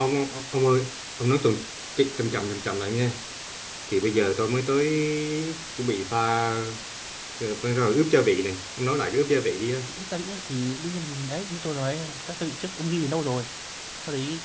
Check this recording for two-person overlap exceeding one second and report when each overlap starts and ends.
none

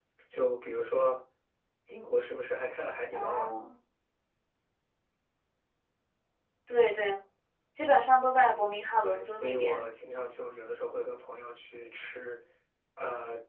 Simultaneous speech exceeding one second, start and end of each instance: 8.4-9.9

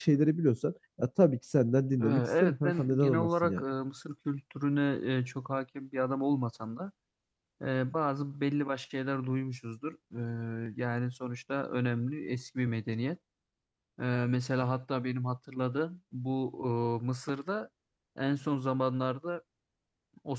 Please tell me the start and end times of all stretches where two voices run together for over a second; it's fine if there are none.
2.0-3.6

